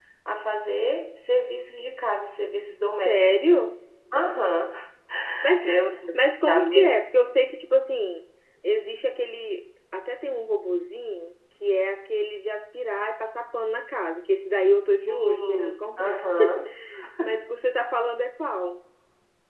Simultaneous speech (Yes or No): Yes